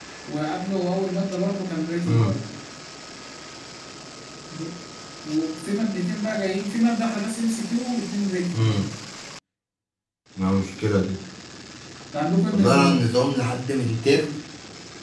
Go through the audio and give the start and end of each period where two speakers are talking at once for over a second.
none

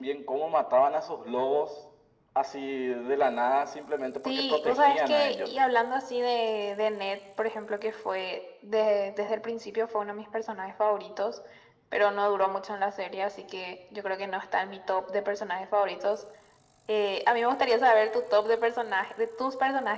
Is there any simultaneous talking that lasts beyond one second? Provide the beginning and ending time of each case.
4.2-5.5

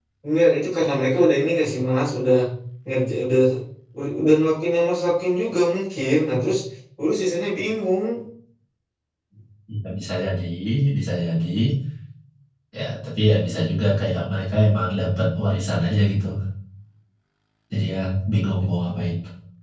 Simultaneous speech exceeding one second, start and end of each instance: none

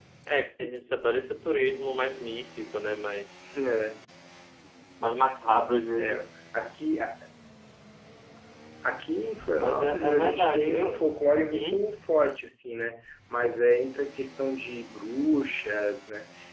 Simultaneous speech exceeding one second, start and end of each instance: 9.6-11.0

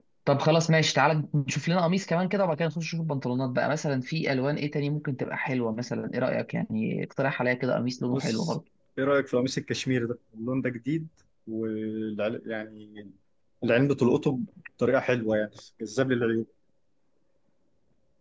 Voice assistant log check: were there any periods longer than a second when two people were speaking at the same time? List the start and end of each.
none

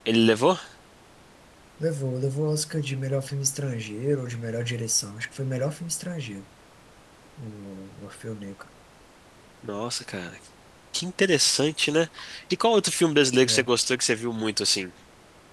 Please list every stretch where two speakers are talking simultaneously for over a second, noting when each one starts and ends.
none

